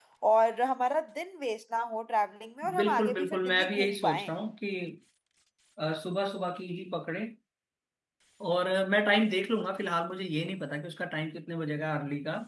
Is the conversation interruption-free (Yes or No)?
No